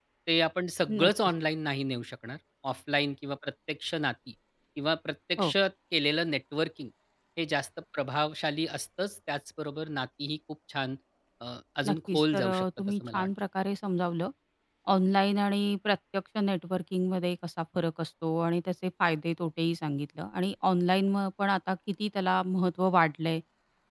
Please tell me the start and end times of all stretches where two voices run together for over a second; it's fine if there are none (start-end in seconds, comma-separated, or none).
11.8-13.3